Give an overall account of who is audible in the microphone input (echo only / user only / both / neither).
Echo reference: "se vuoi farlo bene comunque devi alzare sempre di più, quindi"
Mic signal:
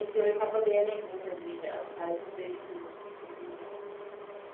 echo only